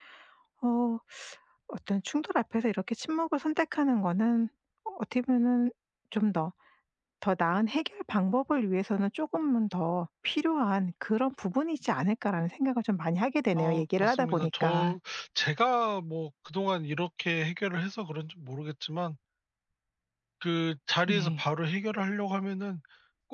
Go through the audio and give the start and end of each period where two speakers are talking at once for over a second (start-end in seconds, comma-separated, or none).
13.6-15.0